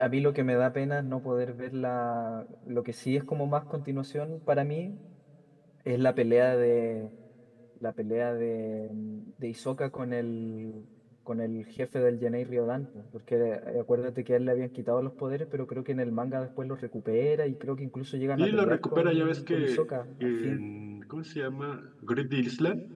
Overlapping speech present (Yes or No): Yes